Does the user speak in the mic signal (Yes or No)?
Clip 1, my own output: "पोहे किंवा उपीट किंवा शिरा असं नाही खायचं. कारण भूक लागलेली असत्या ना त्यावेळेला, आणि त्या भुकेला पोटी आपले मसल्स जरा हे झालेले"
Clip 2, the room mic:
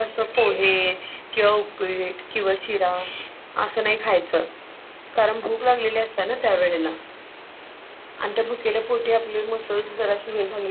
No